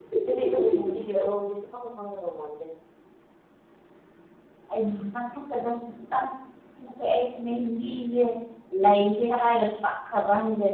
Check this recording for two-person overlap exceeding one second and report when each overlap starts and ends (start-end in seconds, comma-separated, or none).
none